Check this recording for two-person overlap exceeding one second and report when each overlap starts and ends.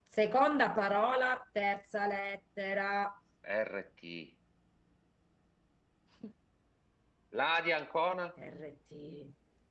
none

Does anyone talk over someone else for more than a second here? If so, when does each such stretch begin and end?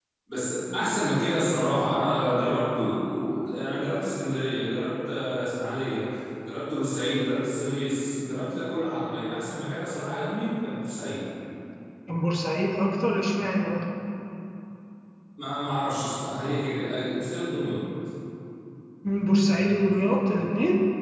none

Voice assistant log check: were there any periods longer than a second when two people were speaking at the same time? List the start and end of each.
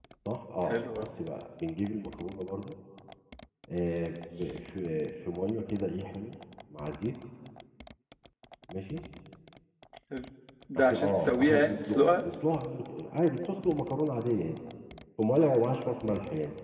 10.8-12.2

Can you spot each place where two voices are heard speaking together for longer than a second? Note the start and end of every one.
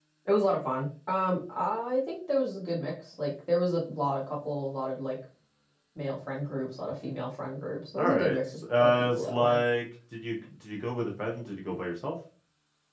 8.0-9.6

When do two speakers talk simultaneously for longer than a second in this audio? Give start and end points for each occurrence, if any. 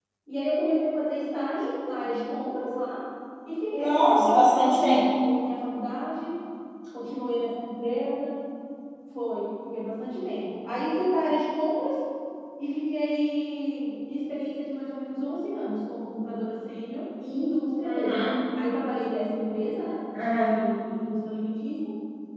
3.8-5.1

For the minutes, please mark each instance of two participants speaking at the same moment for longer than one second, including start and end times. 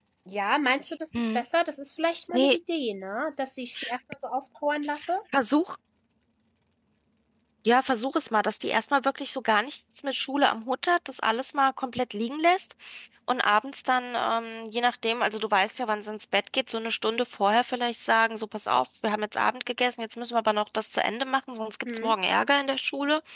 none

